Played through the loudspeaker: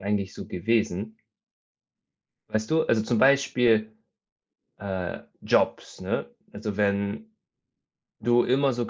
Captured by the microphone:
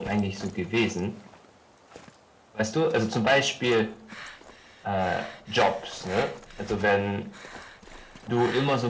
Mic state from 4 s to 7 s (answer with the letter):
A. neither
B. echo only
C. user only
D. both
B